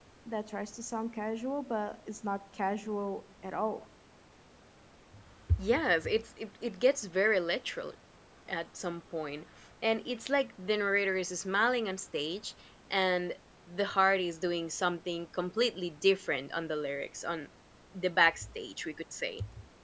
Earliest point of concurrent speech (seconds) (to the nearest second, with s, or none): none